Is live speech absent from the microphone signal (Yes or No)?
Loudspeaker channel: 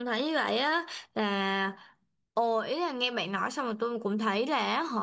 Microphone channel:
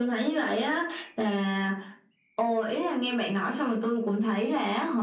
Yes